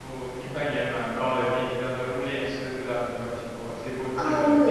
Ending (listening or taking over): taking over